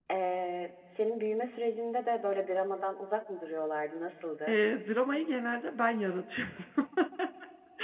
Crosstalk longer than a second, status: none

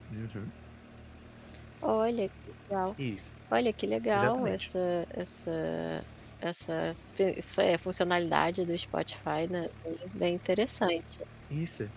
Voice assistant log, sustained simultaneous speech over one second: none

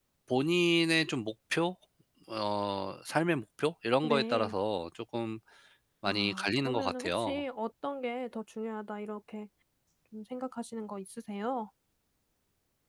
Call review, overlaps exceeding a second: present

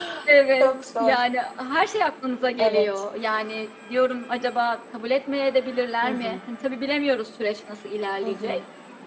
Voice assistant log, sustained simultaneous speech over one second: none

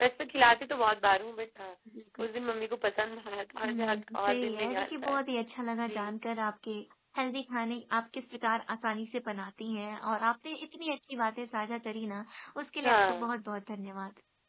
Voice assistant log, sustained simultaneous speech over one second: present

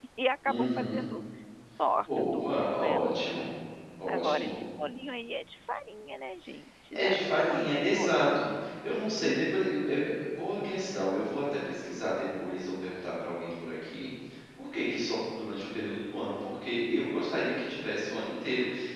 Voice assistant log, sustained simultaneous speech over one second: present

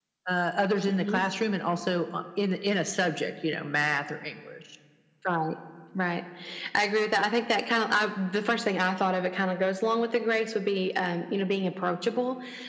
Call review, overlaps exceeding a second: none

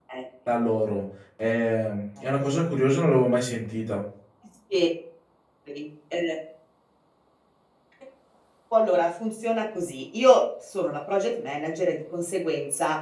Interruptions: none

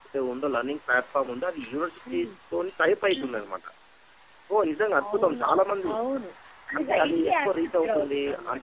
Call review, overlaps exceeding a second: present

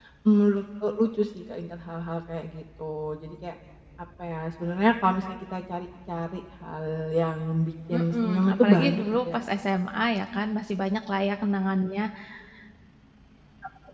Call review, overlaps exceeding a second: present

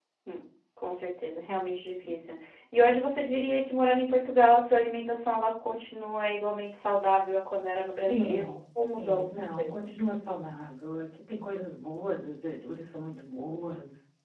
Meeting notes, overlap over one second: present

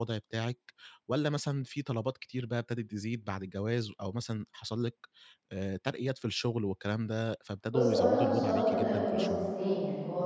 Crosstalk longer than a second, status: present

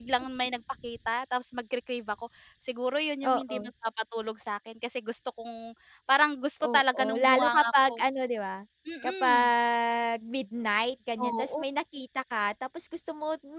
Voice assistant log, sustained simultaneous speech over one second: present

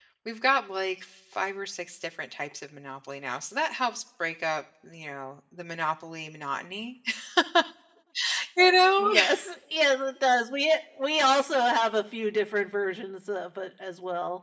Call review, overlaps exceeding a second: none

